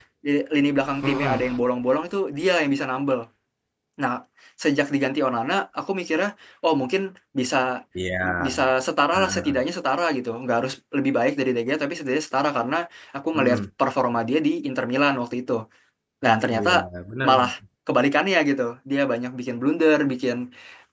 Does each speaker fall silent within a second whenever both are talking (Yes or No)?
Yes